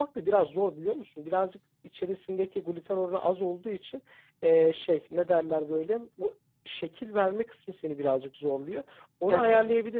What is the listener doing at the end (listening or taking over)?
listening